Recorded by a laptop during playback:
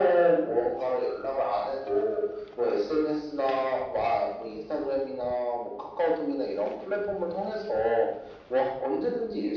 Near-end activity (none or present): none